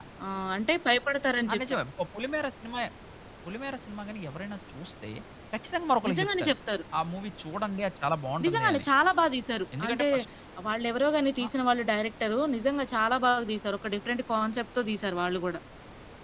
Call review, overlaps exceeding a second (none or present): none